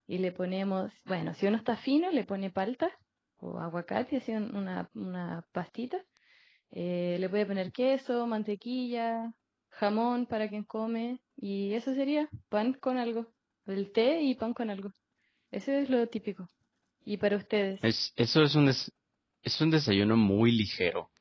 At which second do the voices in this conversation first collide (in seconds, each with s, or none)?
none